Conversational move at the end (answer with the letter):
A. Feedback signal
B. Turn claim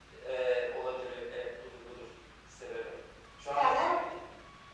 A